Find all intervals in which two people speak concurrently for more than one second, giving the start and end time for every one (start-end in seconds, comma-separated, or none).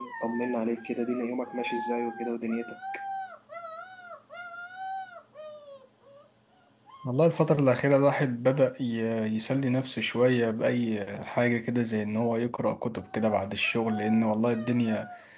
none